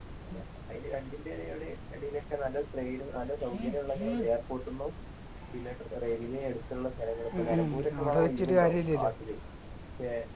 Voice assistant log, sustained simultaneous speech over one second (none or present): present